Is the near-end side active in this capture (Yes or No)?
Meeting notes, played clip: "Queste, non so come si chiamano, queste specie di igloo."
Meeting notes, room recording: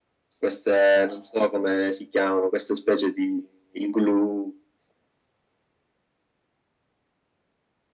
No